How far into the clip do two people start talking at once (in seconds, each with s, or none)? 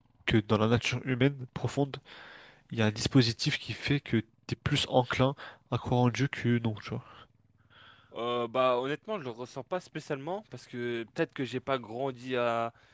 none